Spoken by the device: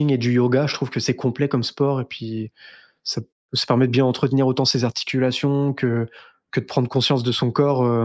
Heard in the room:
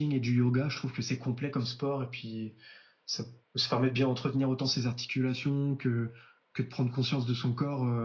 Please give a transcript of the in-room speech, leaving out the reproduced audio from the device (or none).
none